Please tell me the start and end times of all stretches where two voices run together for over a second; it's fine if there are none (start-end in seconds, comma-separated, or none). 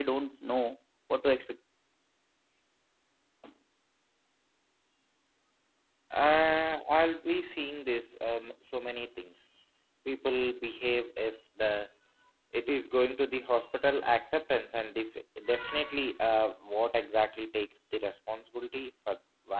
none